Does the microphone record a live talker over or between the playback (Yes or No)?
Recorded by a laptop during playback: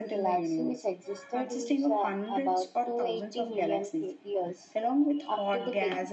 No